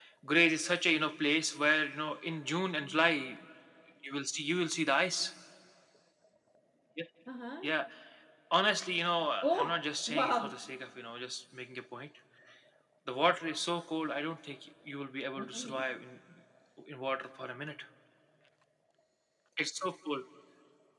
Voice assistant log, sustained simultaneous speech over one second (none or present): present